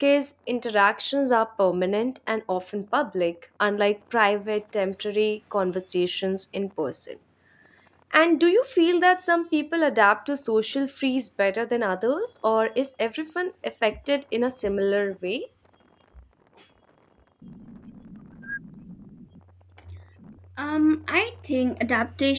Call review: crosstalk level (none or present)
none